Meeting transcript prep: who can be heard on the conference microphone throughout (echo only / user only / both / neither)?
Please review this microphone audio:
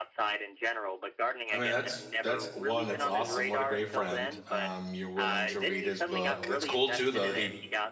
both